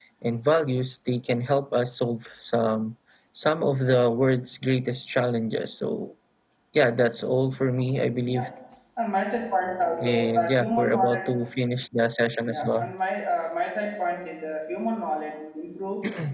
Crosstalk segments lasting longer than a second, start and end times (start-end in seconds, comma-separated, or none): 10.0-11.4